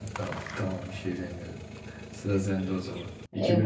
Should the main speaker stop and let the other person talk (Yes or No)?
Yes